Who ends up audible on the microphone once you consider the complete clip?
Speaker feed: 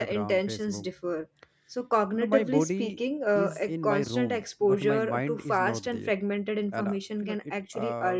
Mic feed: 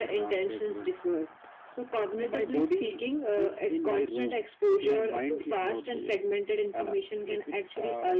echo only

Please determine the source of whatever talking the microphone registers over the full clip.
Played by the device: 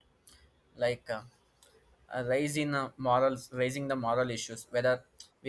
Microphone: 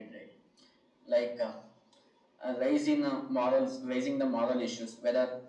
echo only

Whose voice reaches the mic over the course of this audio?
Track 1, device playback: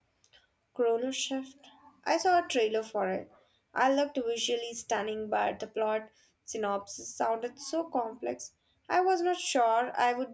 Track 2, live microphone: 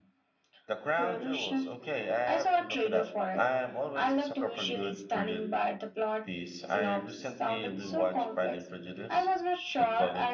both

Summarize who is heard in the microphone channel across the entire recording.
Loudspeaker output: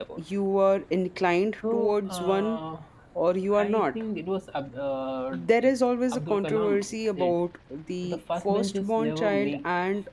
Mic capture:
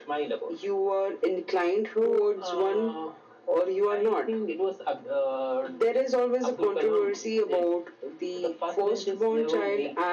echo only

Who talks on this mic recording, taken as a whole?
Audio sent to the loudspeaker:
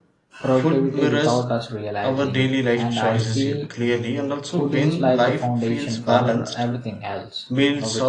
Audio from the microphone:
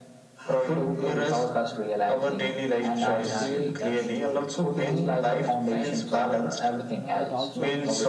both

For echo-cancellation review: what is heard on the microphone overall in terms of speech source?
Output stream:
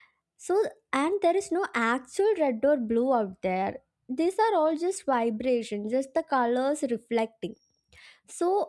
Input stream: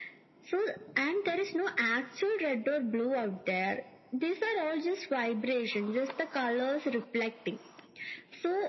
echo only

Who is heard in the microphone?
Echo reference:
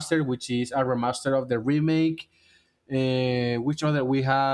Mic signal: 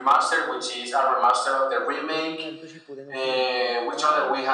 both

